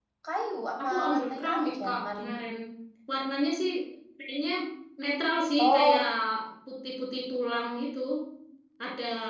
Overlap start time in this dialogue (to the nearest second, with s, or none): 1 s